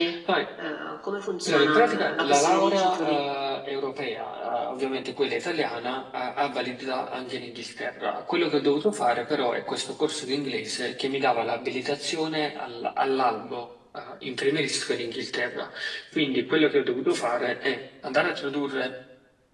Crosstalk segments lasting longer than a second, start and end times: 1.5-3.2

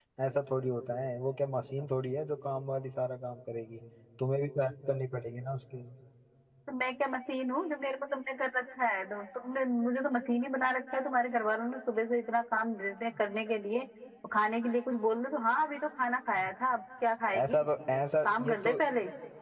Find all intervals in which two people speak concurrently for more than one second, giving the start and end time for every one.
none

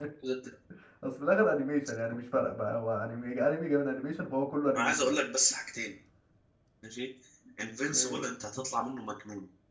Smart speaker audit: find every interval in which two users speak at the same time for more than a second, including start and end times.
none

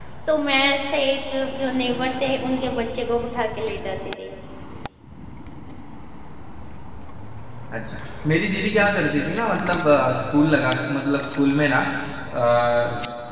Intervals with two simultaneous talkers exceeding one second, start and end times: none

